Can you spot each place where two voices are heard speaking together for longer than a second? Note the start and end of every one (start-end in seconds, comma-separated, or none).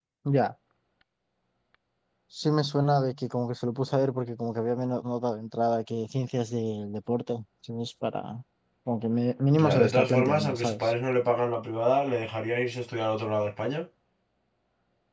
9.6-10.9